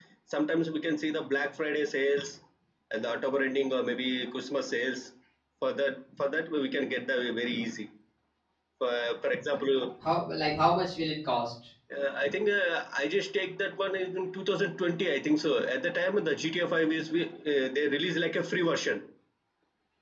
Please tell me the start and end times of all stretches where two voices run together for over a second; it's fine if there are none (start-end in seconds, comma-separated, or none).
none